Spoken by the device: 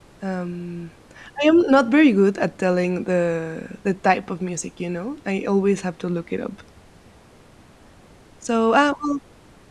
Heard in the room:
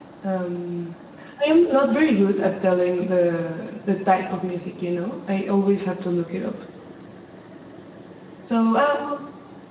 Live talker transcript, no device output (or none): none